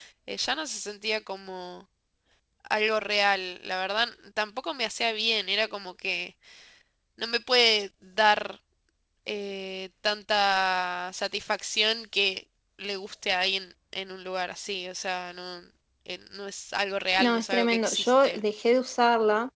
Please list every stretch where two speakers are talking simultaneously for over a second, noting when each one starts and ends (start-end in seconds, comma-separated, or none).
17.2-18.4